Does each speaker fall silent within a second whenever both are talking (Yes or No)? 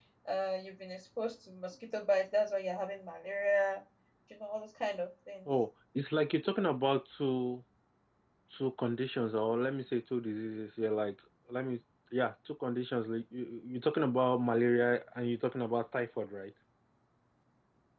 Yes